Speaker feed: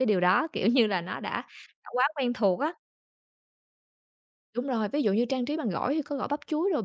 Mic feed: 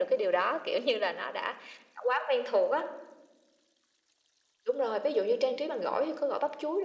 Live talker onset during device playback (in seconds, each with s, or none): none